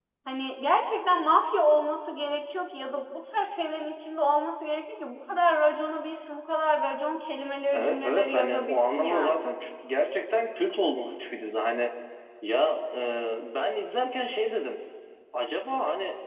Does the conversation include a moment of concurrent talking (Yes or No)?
Yes